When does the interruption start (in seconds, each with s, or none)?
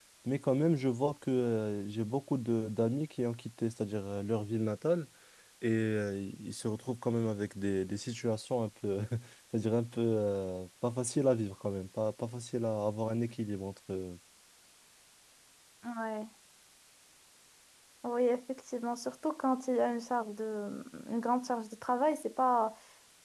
none